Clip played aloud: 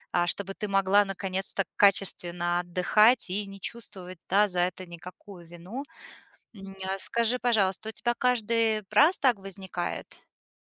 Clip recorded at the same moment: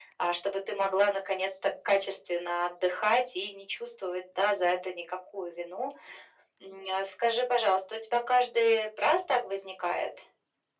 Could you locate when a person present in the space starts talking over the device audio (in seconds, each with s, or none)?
none